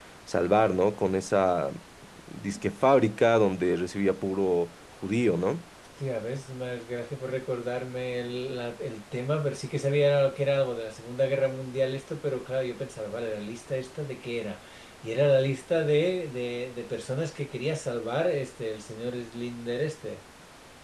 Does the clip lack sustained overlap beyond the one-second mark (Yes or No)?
Yes